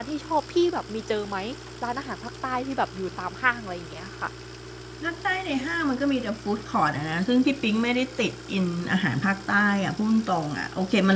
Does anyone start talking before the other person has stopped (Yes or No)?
No